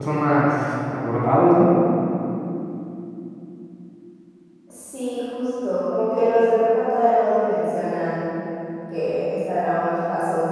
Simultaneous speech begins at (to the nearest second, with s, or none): none